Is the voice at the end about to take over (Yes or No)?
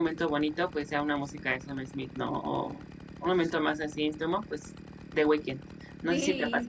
Yes